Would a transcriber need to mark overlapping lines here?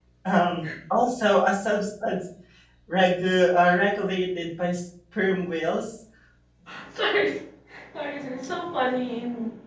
No

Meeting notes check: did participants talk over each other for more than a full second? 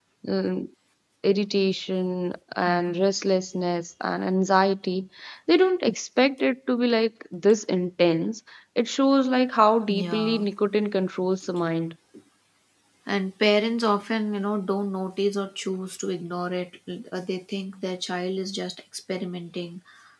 No

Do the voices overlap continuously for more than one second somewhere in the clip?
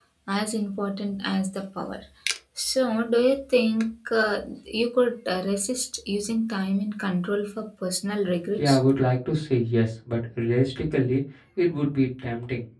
No

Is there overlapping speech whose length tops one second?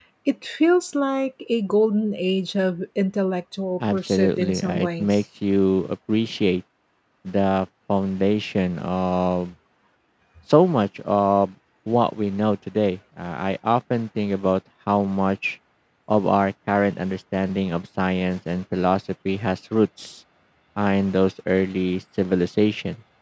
Yes, from 3.8 s

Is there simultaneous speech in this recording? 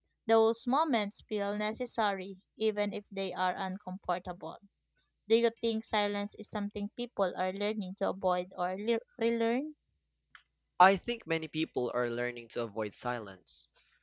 No

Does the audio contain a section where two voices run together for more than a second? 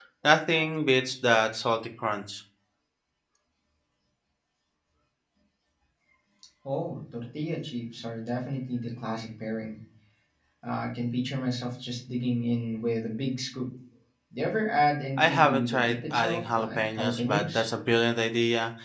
Yes, from 15.2 s

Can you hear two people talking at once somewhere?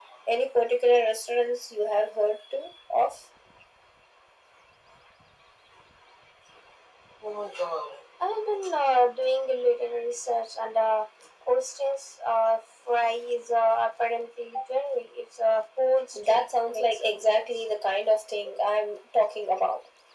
Yes, from 16.1 s

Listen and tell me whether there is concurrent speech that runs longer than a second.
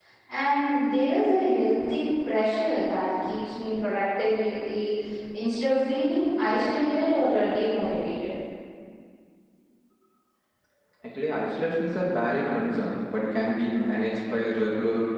No

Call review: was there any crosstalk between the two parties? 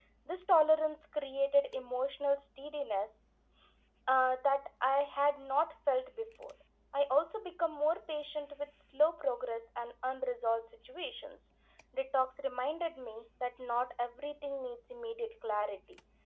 No

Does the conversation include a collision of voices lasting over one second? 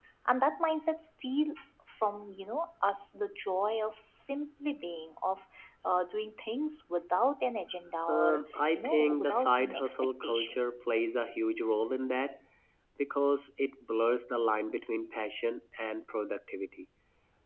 Yes, from 8.1 s

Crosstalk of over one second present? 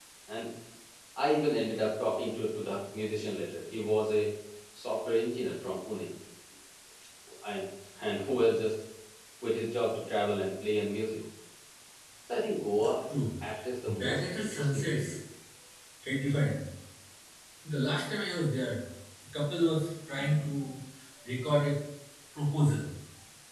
Yes, from 13.8 s

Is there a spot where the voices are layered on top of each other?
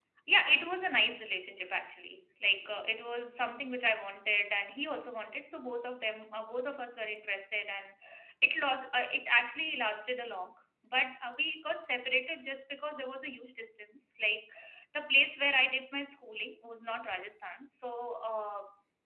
No

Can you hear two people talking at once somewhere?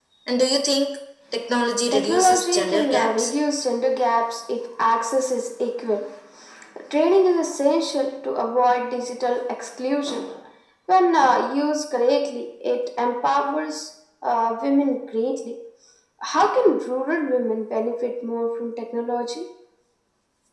Yes, from 1.9 s

